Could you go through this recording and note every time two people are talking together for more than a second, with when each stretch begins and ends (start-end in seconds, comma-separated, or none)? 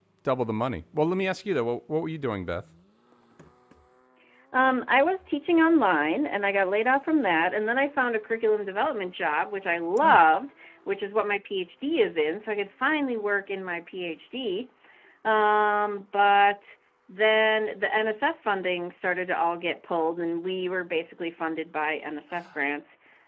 none